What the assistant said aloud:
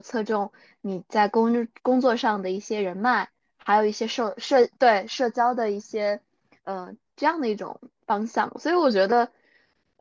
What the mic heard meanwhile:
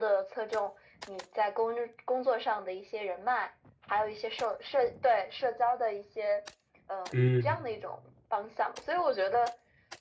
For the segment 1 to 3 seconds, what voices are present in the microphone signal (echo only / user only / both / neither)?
echo only